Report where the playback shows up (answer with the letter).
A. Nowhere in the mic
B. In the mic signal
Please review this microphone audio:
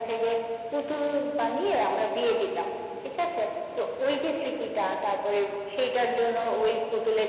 B